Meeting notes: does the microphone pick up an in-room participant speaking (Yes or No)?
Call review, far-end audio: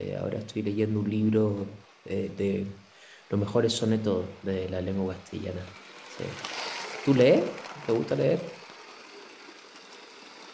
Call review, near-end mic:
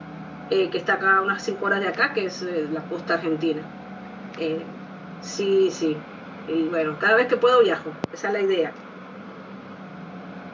Yes